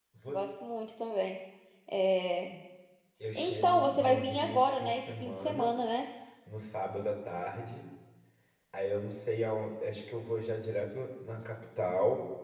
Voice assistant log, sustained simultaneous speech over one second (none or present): present